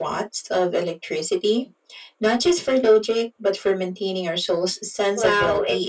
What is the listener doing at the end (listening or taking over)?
taking over